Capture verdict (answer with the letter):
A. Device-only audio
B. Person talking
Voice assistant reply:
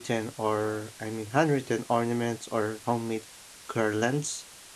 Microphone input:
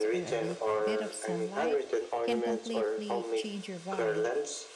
B